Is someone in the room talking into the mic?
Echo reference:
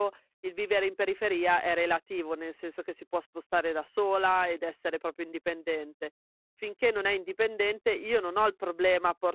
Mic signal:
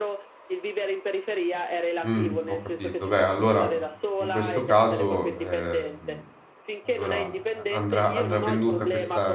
Yes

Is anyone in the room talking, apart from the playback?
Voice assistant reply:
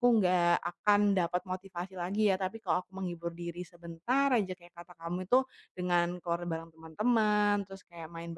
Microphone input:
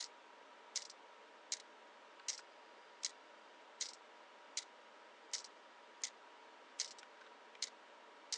No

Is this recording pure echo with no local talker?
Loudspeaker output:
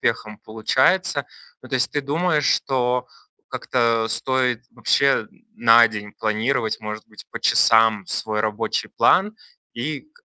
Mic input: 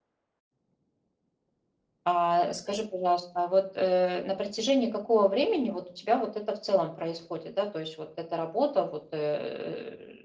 No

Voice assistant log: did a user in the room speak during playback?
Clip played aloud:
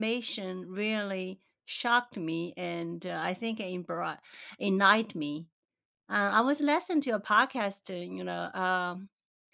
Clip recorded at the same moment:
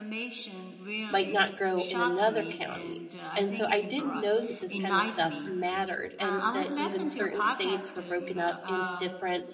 Yes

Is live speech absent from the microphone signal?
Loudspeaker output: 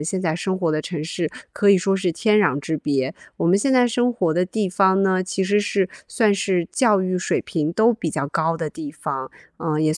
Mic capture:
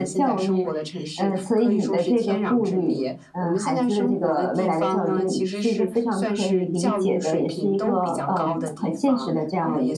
No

